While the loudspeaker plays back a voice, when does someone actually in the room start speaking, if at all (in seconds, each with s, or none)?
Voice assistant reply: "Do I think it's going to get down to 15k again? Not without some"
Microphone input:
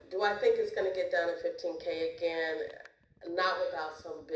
none